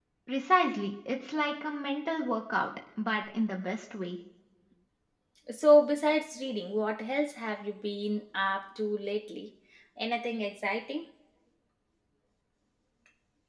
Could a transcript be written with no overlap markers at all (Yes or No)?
Yes